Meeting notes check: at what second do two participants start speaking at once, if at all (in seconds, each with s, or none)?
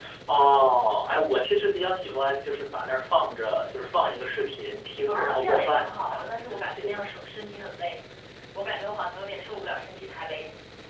5.1 s